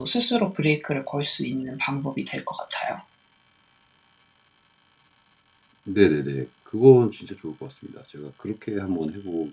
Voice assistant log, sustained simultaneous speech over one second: none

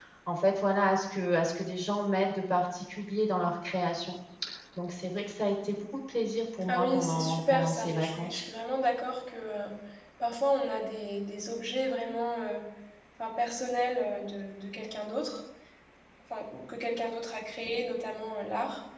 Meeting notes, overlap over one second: present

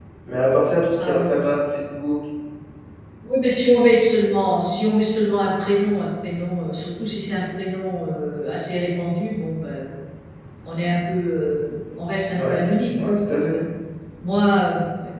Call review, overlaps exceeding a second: none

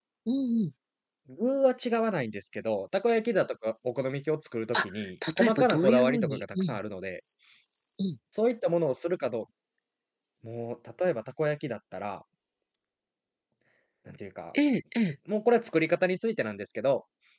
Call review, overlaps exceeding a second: present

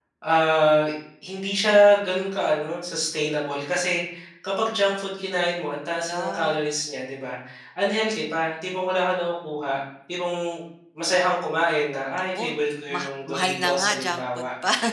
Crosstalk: present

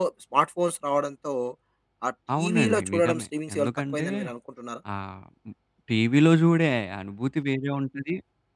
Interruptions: present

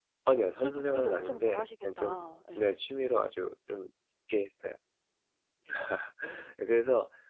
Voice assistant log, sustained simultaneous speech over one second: present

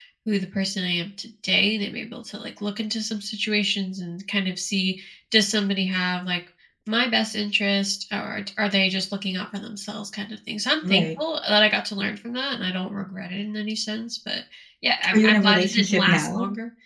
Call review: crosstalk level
present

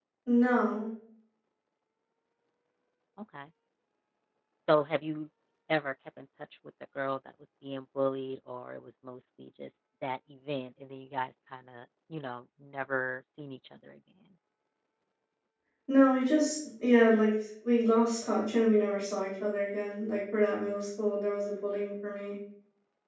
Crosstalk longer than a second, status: none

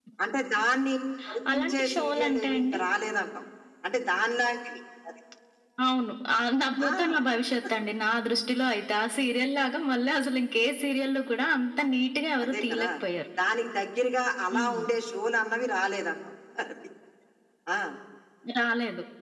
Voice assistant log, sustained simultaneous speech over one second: present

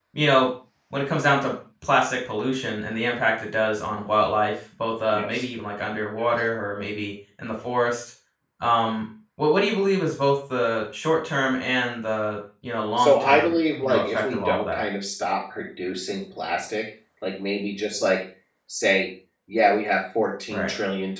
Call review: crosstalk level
present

